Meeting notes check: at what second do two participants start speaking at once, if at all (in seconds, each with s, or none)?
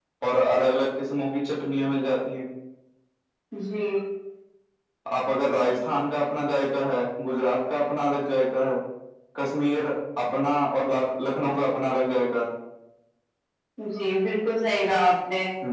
none